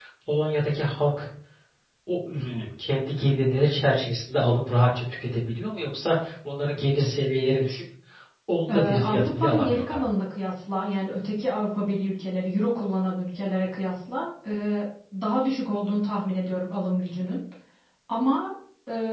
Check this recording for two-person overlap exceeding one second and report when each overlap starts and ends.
8.7-10.0

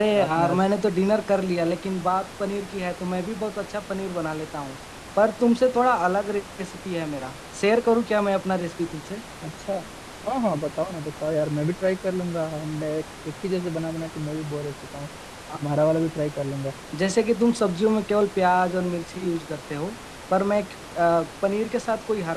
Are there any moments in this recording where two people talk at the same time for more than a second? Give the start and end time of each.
none

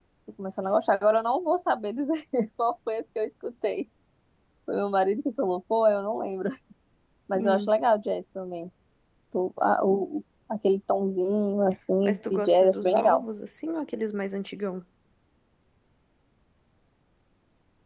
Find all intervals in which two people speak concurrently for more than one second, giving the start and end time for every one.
12.0-13.2

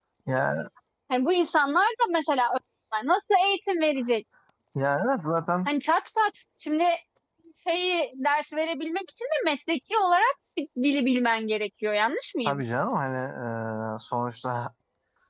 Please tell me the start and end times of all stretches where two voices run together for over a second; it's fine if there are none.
none

